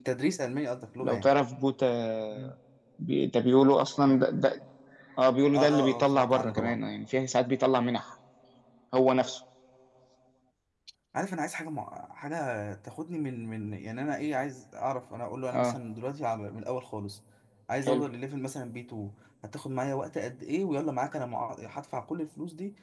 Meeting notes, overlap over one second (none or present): present